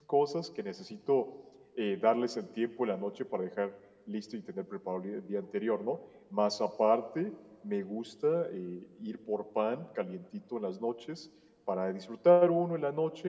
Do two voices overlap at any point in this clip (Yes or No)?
No